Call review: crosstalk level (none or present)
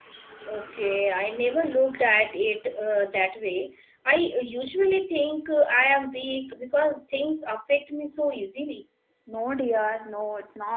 none